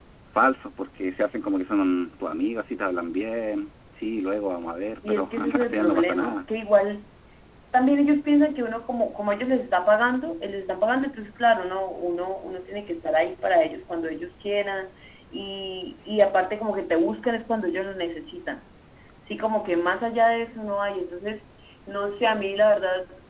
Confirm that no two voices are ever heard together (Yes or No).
No